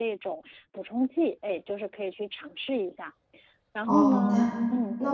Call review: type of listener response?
taking over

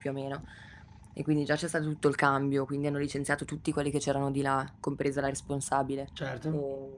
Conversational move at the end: listening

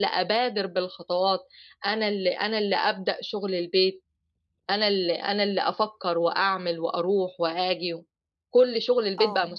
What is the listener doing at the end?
listening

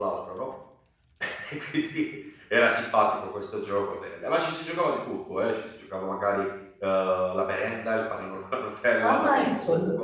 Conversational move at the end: taking over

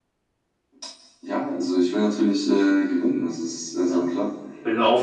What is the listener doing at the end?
taking over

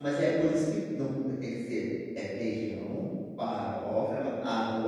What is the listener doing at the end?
listening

